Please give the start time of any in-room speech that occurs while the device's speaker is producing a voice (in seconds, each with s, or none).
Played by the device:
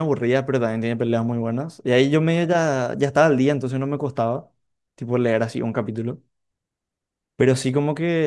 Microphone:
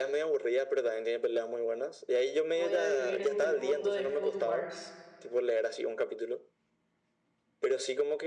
2.6 s